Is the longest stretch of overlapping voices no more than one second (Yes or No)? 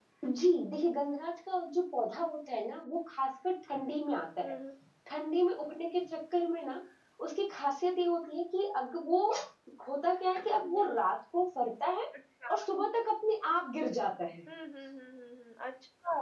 Yes